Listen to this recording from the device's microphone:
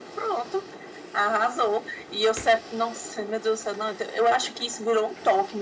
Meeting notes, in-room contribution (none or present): none